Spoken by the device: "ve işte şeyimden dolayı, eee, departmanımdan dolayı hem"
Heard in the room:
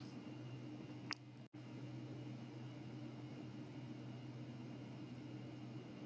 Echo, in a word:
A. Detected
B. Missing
B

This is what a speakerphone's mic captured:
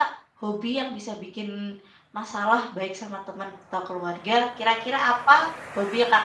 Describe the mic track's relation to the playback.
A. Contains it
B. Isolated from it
B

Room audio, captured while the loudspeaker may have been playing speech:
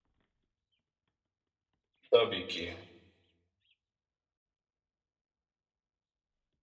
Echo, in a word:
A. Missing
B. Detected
A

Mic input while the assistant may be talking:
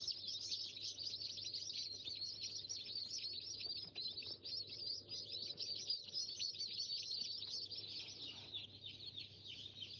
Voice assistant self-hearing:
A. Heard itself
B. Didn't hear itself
B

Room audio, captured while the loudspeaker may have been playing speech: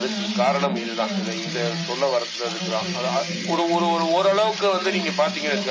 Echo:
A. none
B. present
B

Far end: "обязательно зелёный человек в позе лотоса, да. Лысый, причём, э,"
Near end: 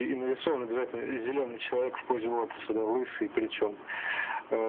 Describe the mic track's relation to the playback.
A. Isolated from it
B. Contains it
B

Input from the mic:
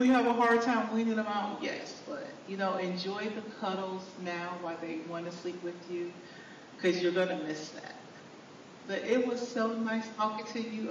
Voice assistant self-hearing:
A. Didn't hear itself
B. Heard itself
B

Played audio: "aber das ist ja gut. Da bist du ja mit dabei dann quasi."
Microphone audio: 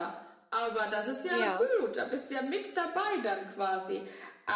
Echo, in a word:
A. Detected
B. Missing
A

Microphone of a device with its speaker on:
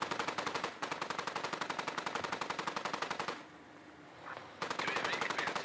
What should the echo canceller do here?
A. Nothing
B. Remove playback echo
A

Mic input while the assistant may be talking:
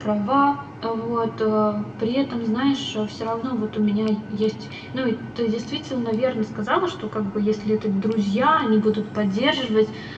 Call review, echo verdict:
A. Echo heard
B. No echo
B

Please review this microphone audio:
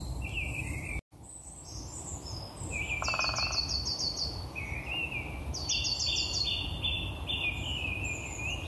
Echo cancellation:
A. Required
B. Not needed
B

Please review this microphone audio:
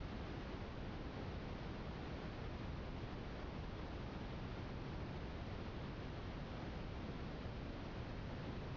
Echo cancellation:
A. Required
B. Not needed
B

